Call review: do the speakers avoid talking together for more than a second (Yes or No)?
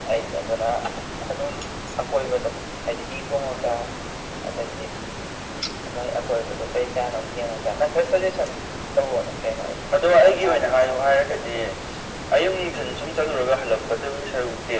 No